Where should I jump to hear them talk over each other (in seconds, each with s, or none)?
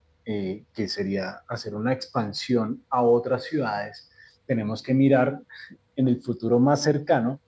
none